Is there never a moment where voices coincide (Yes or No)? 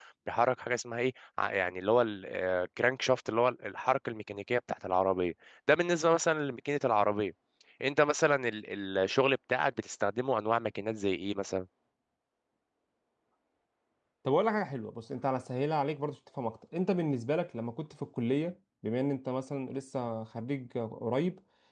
Yes